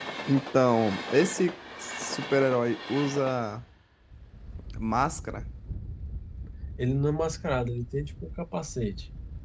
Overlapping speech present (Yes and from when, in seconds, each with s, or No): No